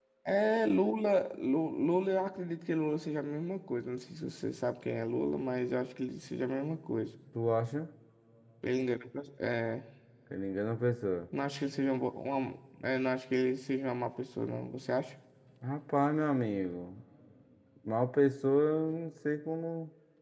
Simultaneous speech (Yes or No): No